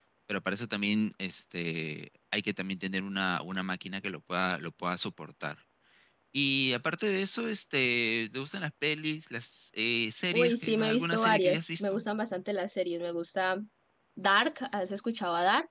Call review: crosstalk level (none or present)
present